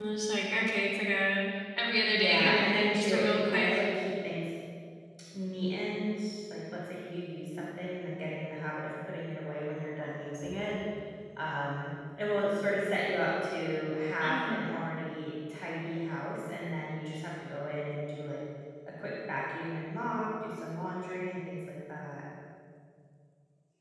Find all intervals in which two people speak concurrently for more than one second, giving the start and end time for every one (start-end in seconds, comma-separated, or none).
2.1-3.7